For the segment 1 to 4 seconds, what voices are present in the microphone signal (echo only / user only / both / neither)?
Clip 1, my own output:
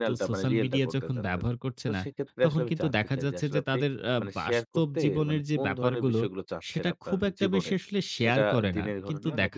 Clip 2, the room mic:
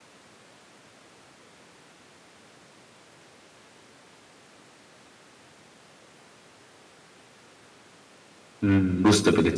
neither